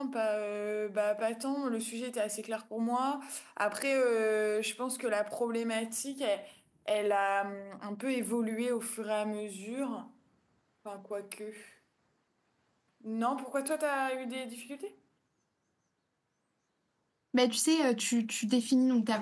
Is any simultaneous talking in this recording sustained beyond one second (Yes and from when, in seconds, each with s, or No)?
No